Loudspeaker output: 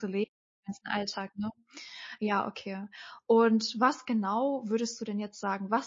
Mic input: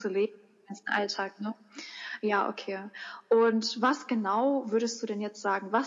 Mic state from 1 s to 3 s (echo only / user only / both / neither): echo only